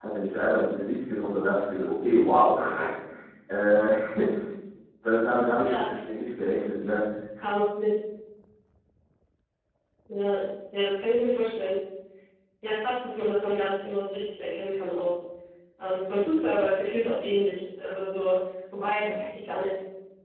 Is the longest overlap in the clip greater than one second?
No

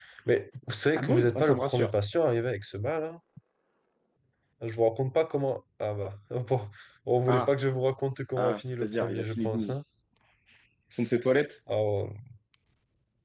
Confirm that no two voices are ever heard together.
No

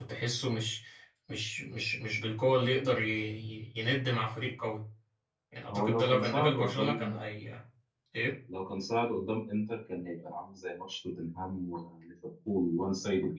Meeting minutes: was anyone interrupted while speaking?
Yes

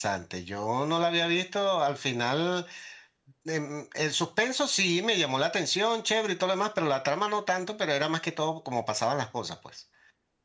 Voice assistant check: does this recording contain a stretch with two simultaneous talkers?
No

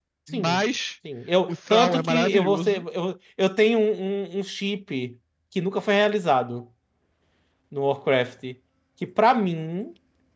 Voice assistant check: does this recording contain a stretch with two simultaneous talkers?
Yes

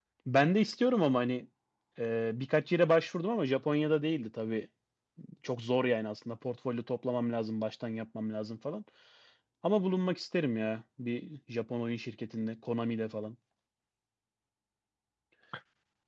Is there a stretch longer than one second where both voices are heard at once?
No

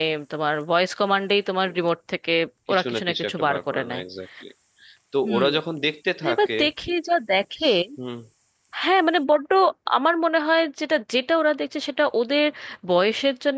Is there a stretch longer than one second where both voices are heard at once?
Yes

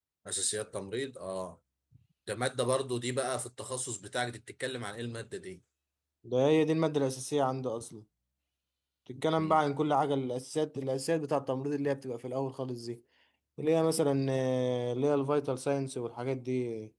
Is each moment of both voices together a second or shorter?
Yes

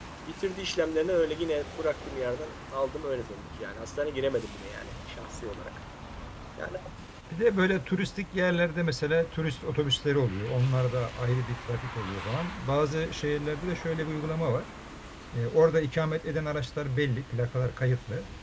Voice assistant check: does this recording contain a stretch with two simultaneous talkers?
No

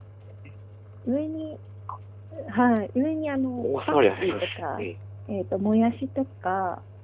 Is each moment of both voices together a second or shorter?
No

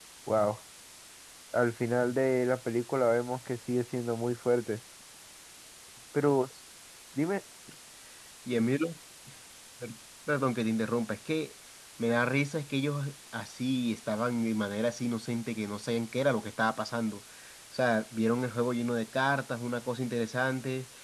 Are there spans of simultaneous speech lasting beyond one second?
No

